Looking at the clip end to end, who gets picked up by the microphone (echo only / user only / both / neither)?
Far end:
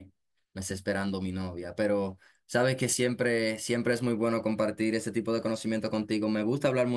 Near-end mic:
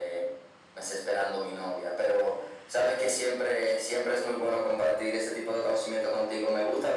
echo only